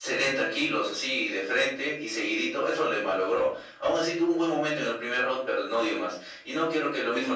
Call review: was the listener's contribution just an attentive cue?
Yes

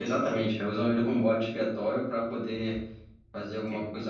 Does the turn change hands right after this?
No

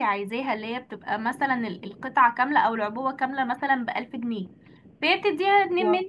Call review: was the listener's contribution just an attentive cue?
Yes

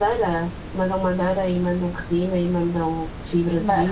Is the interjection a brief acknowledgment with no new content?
No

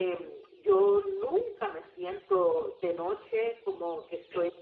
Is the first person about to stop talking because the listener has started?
No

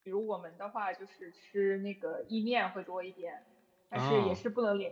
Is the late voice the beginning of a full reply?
No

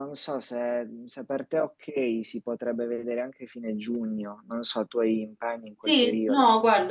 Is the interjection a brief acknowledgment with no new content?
No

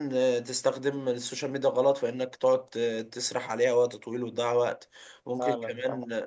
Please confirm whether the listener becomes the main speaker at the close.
No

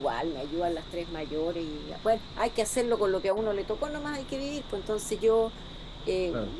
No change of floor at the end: Yes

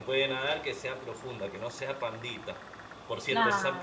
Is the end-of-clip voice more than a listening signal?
No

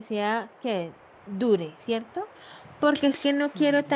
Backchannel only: Yes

